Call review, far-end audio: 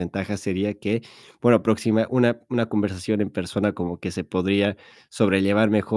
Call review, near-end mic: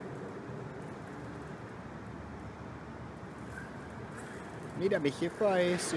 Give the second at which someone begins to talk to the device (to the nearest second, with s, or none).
5 s